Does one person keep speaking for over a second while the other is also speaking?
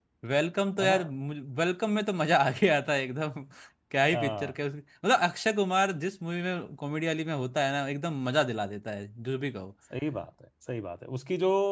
No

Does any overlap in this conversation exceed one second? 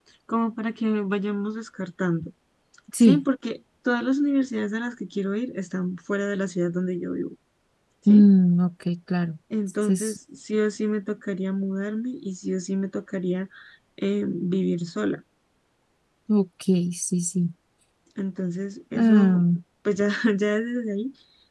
No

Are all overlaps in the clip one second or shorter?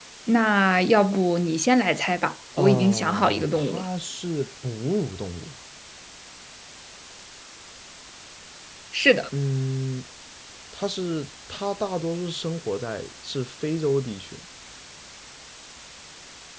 No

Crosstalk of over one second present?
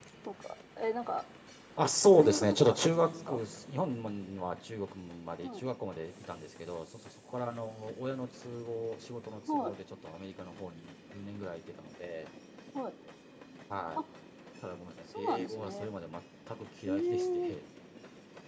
Yes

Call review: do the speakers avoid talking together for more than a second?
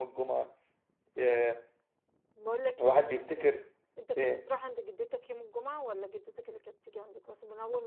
Yes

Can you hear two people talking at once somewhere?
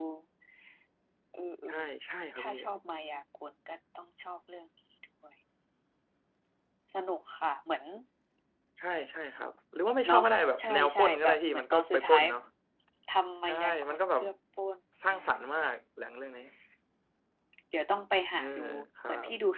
Yes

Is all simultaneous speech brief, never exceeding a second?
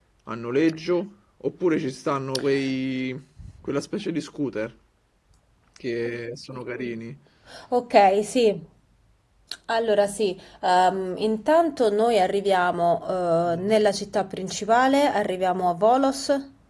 Yes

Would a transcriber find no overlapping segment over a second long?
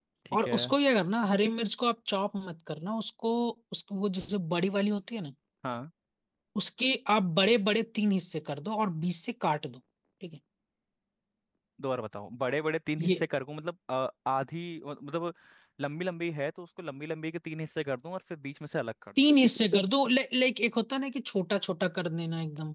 Yes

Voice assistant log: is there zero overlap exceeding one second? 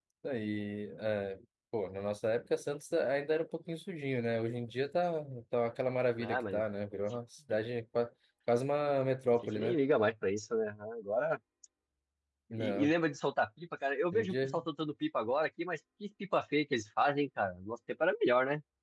Yes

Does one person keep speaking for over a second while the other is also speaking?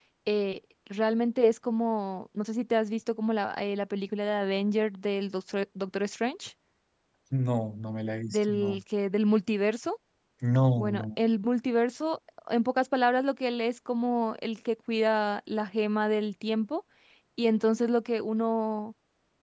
No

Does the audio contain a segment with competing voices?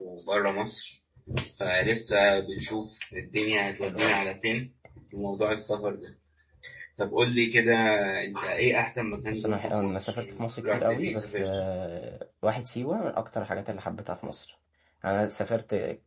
Yes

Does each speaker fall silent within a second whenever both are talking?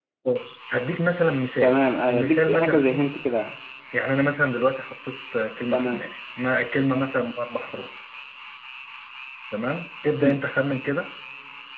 No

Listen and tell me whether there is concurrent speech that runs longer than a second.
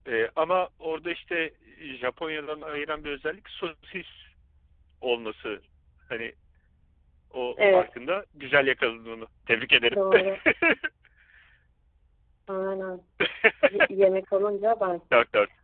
No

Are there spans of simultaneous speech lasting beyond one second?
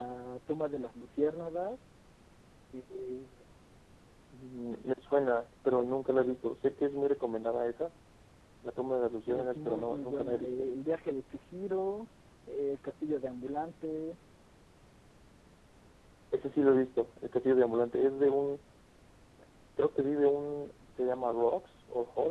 Yes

